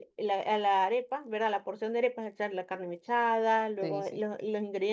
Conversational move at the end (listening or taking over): listening